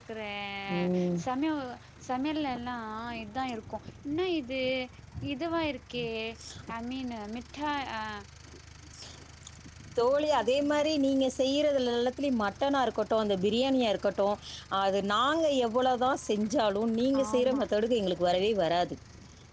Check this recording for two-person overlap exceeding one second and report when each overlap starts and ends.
none

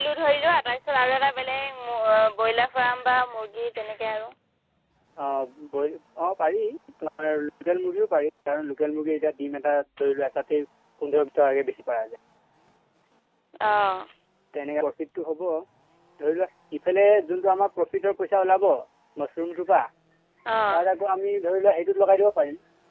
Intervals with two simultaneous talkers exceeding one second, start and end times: none

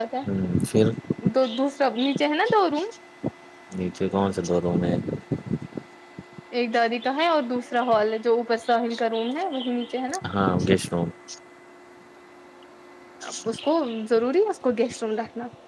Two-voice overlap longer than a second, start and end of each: none

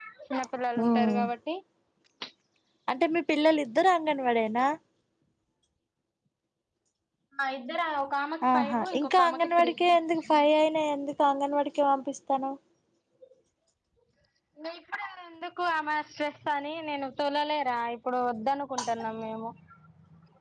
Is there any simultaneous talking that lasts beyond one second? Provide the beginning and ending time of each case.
8.5-9.7

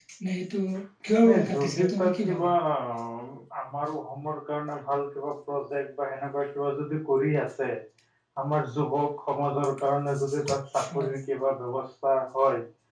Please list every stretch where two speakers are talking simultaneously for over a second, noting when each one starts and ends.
1.2-2.5

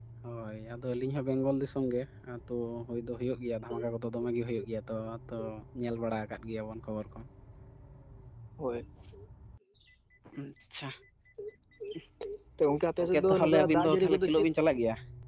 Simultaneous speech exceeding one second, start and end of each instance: 13.0-14.4

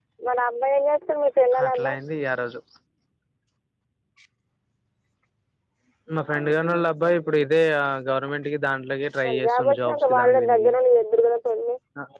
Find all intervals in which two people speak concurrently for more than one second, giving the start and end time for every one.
9.2-10.7

